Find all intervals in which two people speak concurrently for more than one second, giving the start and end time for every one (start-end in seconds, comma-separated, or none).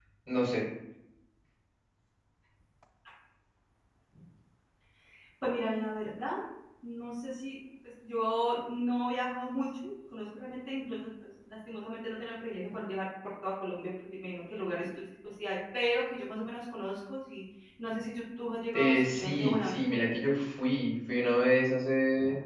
18.7-20.0